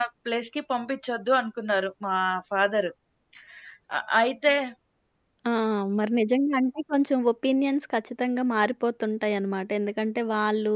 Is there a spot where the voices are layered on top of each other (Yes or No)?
No